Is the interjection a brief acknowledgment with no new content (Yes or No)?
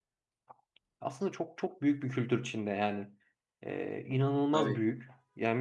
Yes